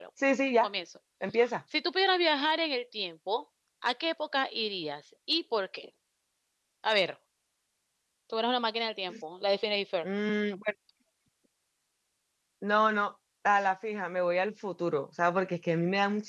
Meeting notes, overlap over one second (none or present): none